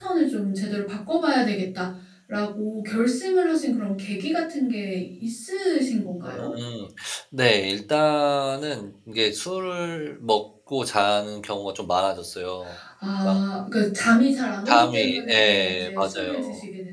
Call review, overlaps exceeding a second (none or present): present